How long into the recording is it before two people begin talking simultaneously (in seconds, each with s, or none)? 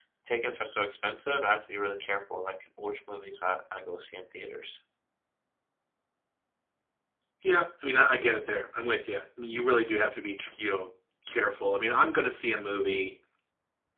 none